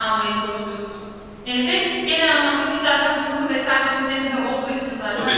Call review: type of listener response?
taking over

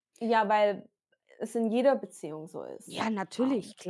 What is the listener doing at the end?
taking over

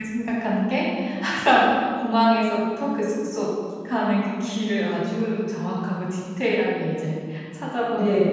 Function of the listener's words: taking over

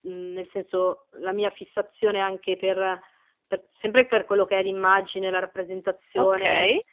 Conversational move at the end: listening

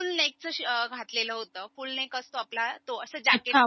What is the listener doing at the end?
taking over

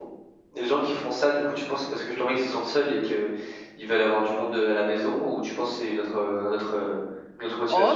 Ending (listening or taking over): taking over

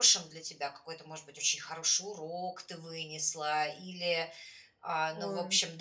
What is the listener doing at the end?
listening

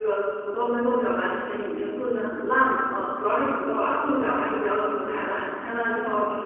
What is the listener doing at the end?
taking over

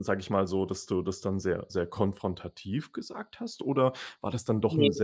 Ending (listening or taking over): listening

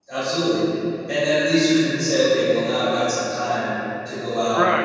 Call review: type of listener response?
taking over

